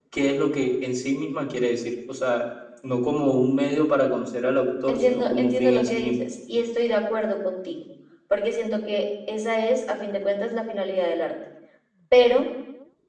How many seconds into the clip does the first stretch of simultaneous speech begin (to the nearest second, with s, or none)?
5 s